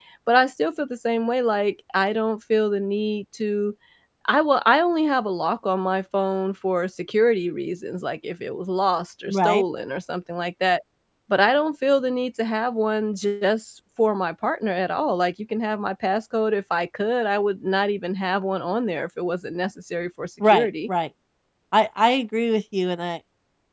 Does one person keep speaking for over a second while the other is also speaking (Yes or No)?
No